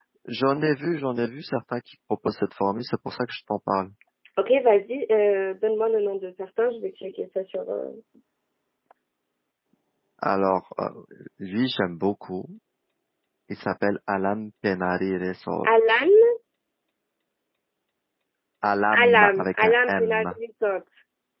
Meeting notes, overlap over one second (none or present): present